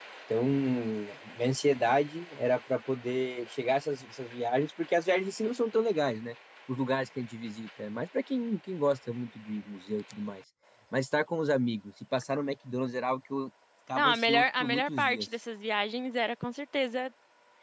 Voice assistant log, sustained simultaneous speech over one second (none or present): present